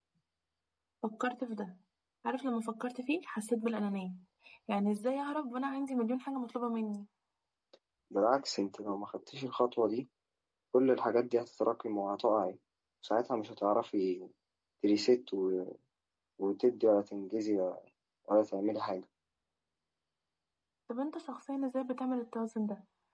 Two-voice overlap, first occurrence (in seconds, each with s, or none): none